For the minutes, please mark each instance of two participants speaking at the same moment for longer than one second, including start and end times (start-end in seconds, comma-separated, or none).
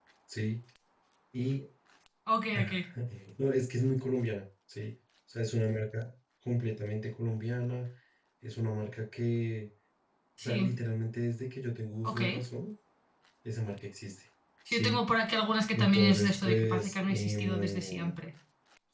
15.7-18.1